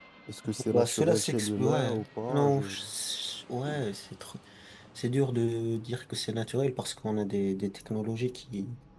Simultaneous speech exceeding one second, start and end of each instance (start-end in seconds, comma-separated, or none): 0.7-2.6